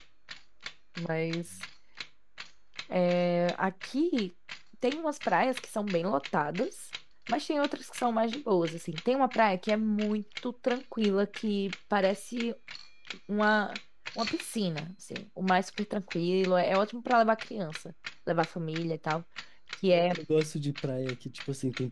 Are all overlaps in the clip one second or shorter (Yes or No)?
Yes